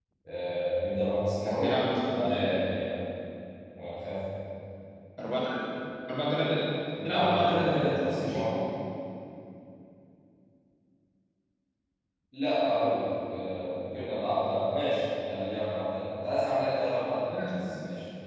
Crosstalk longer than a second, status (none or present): present